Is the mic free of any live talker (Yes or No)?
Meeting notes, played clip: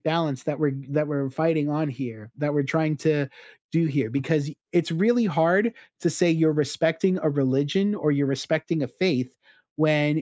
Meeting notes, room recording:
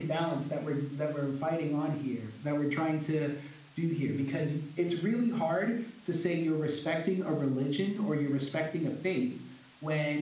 Yes